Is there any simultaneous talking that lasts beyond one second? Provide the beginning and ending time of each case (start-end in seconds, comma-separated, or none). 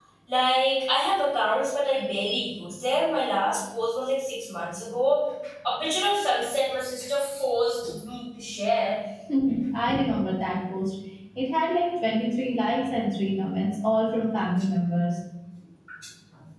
none